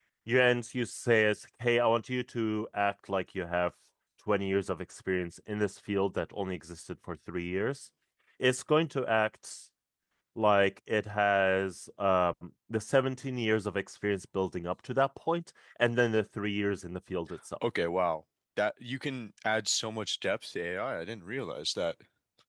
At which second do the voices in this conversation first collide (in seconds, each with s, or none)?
none